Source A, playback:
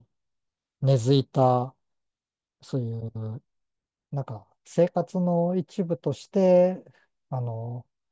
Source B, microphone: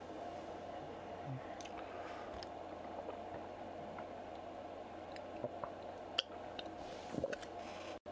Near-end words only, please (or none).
none